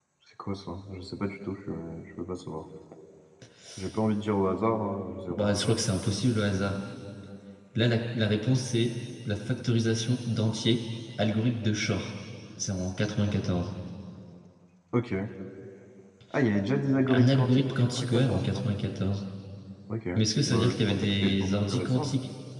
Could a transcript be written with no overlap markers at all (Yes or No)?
No